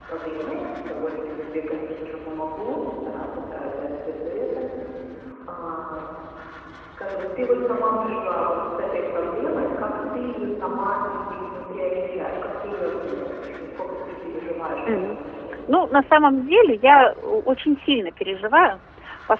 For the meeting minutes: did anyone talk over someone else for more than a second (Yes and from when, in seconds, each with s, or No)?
No